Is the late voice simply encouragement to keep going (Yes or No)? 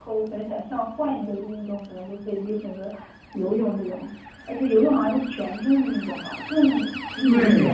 No